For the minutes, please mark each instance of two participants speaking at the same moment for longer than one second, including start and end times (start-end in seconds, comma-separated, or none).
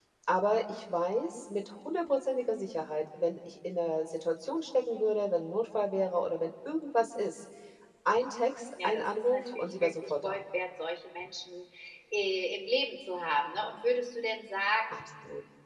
8.8-10.4